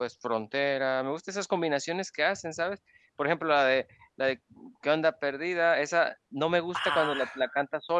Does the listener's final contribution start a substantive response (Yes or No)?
No